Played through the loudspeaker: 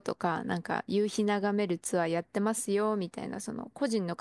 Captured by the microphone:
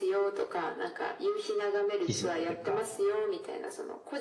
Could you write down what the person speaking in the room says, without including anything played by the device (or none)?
記事っていうか、